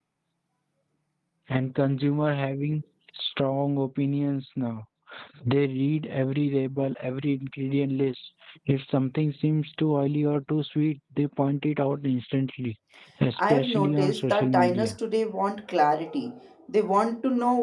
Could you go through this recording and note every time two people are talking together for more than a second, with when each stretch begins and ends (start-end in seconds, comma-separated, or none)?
13.4-14.9